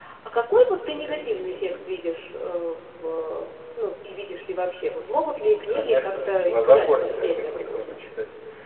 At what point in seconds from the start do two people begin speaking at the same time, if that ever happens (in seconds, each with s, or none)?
5.6 s